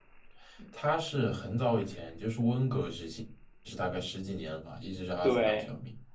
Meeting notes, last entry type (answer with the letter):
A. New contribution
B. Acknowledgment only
A